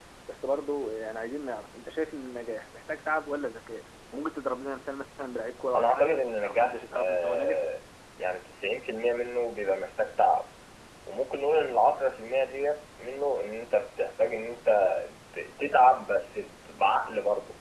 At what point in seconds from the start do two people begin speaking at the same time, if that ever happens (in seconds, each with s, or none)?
5.7 s